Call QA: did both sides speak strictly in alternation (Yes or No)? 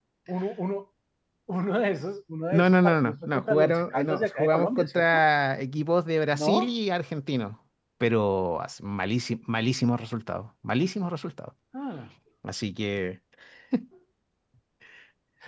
No